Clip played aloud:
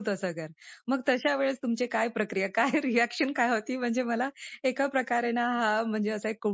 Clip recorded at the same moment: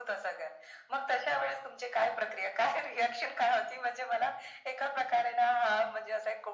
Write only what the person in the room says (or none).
none